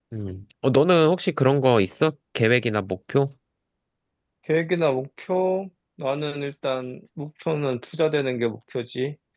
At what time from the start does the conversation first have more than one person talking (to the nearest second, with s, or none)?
none